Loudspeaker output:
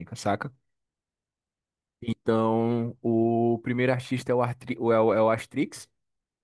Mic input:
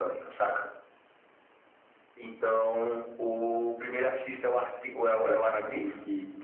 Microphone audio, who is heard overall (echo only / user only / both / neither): both